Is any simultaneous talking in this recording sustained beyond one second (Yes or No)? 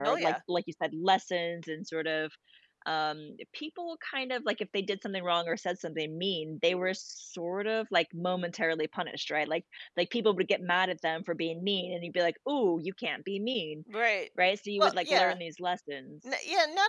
No